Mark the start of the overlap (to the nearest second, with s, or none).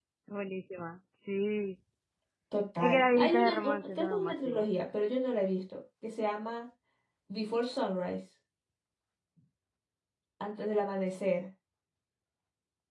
3 s